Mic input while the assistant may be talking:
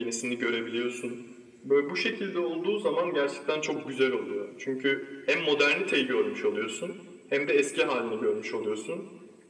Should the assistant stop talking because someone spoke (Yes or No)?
No